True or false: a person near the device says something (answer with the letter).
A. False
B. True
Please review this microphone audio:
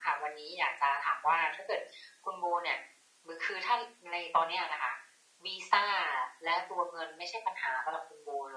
A